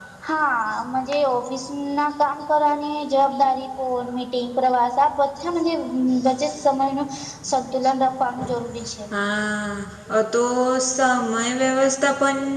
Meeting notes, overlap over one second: none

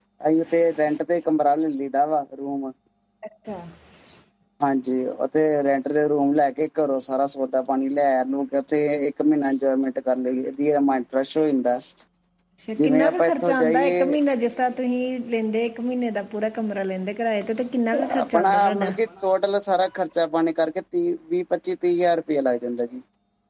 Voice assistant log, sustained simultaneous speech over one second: present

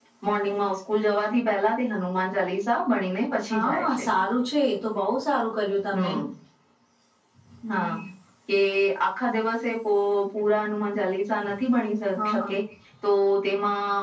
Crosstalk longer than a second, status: none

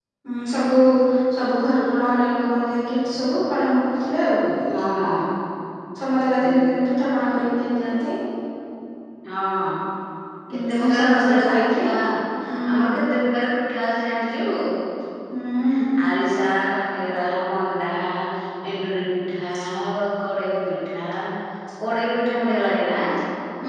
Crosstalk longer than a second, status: present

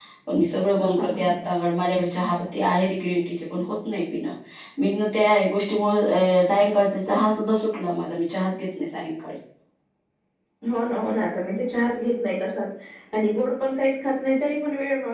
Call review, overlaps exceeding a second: none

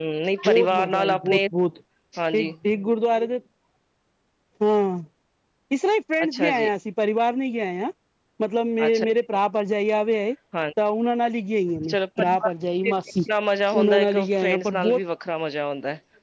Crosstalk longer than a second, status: present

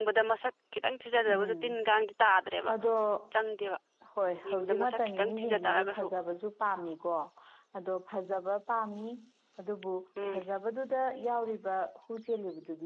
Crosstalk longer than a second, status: present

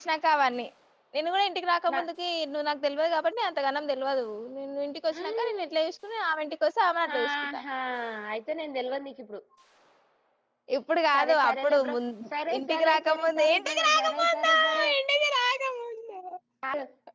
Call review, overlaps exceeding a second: present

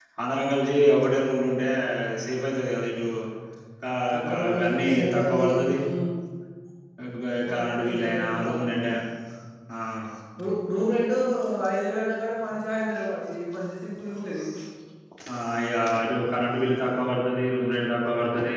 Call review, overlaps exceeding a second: present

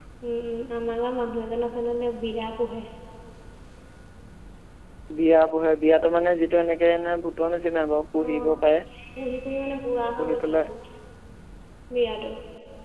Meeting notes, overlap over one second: none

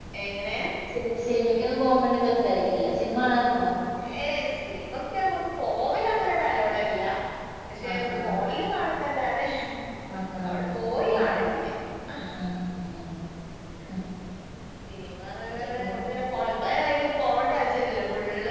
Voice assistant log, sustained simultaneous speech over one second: none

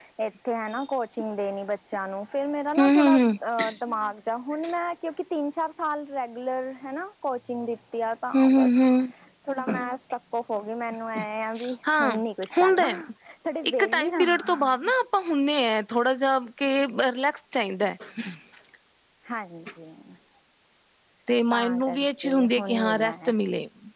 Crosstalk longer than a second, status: present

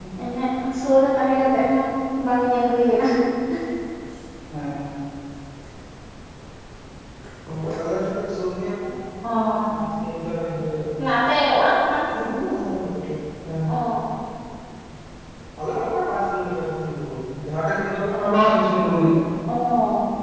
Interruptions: none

